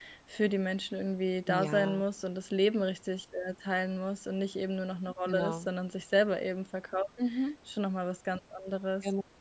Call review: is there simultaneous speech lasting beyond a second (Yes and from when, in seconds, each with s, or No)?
No